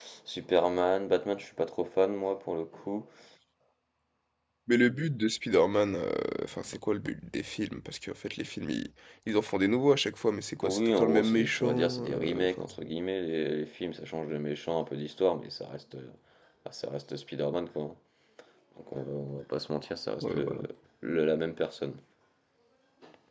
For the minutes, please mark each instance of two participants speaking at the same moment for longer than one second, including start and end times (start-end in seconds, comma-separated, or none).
10.6-12.8